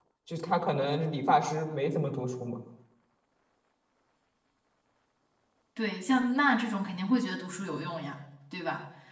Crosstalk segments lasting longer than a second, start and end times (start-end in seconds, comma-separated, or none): none